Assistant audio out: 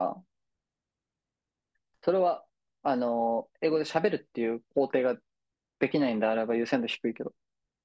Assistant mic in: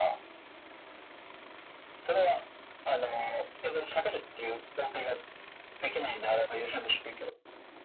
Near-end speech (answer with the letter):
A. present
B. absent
B